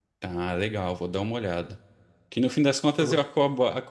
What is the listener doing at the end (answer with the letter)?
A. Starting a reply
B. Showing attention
B